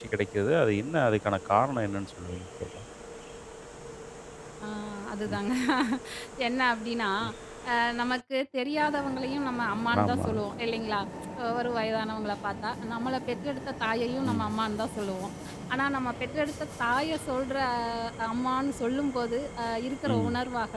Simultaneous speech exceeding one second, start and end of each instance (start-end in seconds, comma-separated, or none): none